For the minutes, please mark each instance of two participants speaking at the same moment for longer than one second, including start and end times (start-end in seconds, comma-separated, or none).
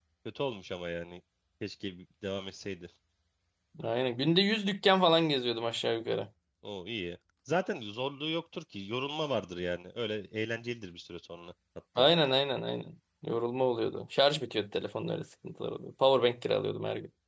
none